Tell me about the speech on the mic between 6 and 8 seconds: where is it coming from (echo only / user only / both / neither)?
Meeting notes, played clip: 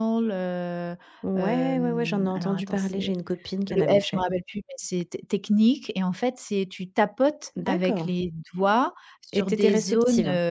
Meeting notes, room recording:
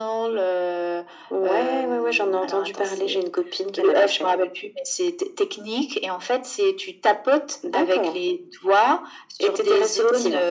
echo only